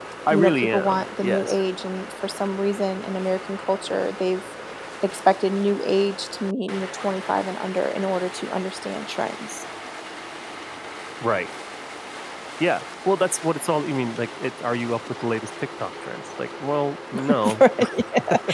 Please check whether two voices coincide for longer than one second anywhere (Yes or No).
Yes